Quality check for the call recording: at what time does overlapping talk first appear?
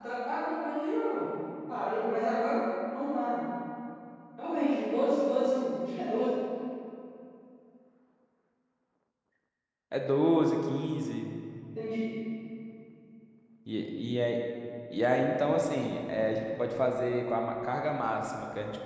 none

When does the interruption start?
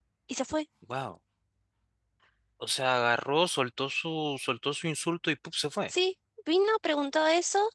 none

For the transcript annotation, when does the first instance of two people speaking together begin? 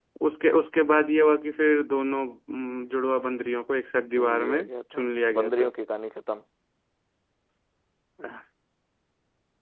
4.2 s

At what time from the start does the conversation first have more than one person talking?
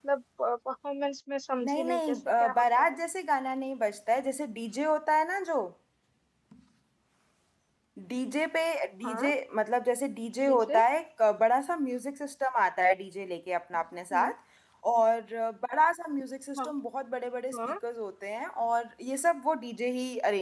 1.7 s

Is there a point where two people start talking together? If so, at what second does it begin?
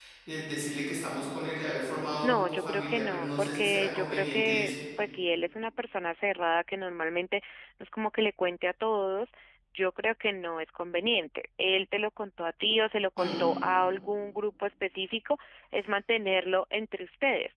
2.2 s

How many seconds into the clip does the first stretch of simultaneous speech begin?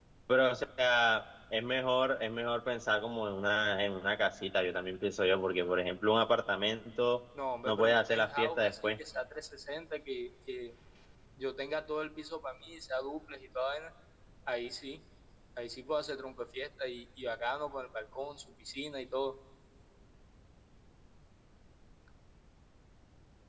7.7 s

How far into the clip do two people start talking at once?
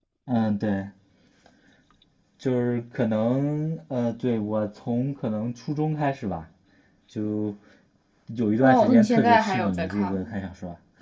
8.6 s

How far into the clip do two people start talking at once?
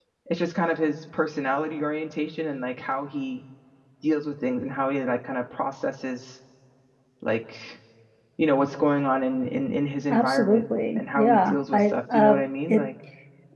10.1 s

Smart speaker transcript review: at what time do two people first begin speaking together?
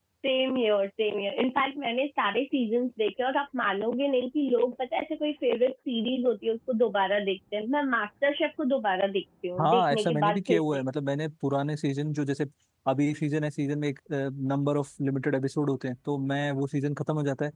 9.6 s

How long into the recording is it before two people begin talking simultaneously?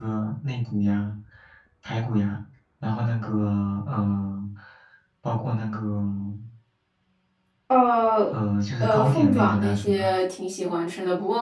8.8 s

